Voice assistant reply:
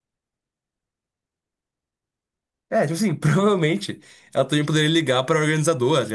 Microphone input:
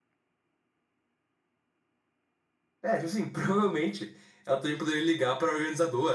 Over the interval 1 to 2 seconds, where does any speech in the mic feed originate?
neither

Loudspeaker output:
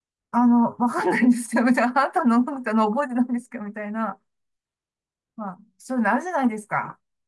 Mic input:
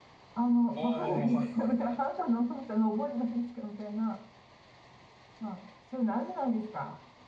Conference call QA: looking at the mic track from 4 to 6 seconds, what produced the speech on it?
echo only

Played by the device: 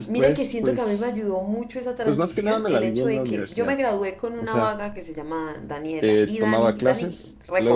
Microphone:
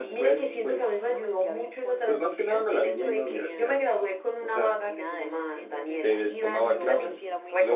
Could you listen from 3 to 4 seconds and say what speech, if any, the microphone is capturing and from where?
both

